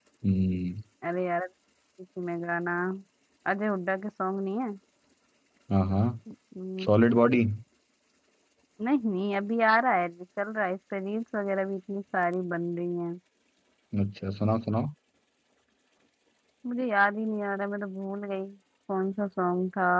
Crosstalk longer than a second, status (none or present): none